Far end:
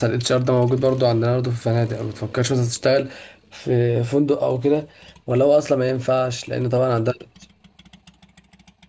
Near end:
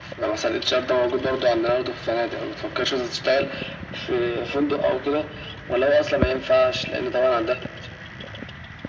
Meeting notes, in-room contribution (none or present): none